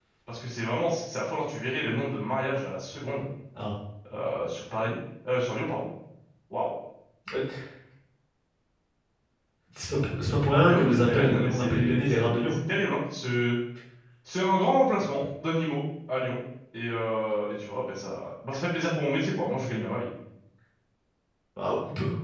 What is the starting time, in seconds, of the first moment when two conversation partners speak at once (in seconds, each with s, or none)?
10.7 s